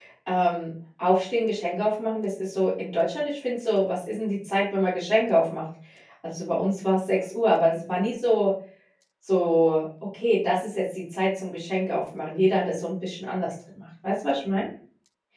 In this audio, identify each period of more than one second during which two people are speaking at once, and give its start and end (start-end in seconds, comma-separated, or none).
none